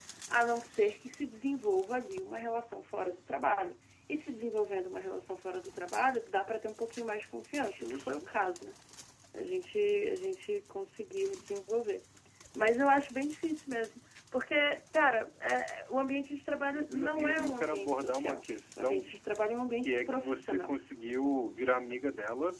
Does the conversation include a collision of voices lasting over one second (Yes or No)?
Yes